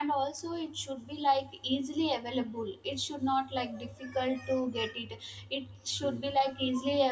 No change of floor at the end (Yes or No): Yes